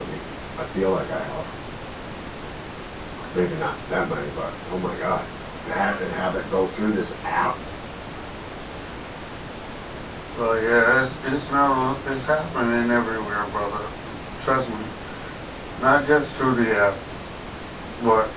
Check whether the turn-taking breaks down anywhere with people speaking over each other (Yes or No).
No